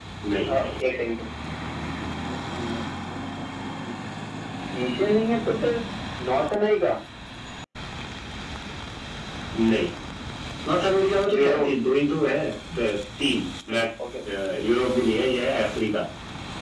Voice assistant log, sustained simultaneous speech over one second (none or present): none